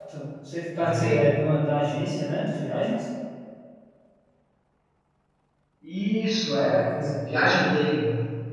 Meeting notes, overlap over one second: present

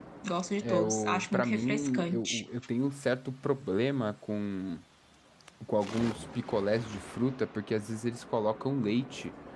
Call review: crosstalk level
present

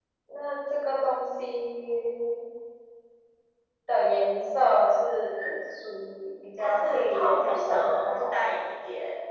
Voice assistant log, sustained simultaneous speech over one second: present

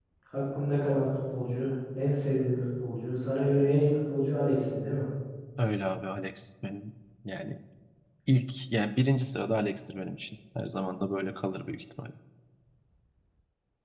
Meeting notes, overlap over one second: none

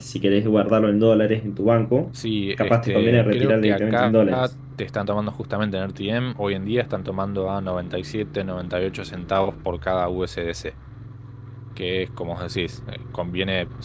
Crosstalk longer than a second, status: present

